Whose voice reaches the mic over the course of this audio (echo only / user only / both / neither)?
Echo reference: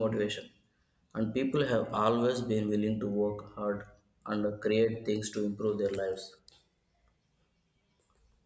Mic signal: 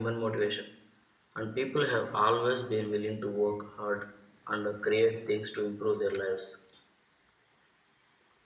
echo only